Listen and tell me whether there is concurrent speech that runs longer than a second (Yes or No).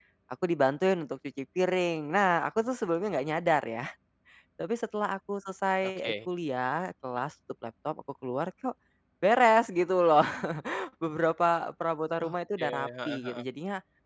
Yes